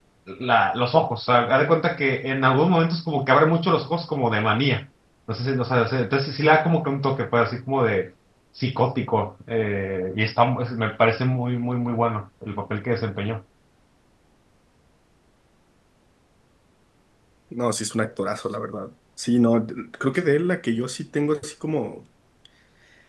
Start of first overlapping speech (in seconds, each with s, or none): none